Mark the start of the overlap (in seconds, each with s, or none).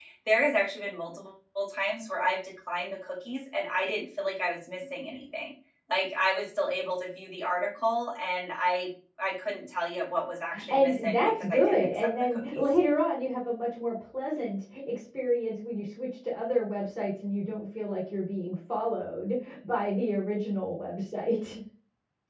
10.5 s